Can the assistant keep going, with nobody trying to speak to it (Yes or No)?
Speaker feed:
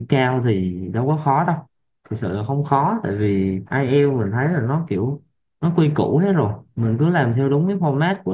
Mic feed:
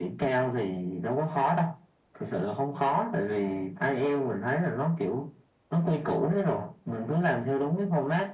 Yes